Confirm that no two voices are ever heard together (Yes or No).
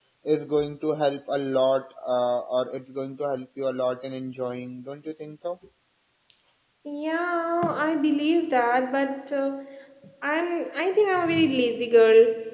Yes